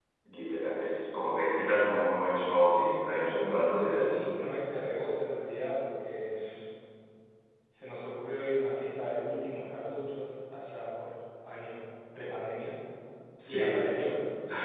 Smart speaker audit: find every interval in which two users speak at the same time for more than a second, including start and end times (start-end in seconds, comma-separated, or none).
2.7-4.2